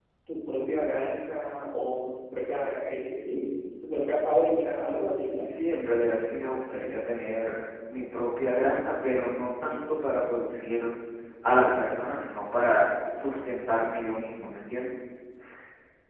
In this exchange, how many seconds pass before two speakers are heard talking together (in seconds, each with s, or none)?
none